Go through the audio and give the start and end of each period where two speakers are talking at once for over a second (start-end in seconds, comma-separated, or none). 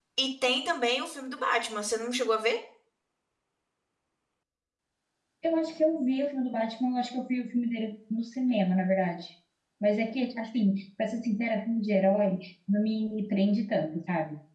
none